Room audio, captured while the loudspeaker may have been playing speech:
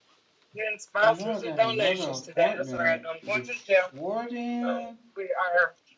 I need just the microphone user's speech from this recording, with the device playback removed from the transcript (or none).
I know I got another appointment before then